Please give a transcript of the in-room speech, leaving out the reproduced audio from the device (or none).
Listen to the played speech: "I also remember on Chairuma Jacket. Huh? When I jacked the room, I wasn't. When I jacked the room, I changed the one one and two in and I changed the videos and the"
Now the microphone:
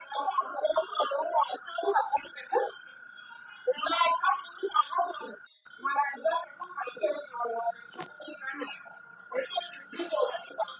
none